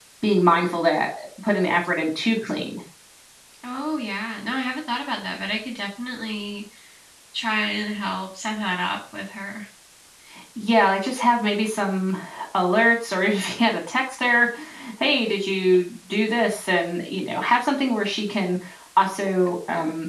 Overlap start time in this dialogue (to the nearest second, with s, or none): none